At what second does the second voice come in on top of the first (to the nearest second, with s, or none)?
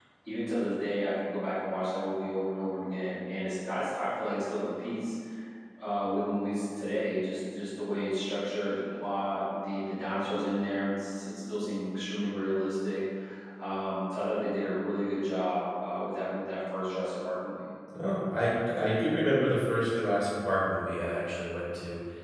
none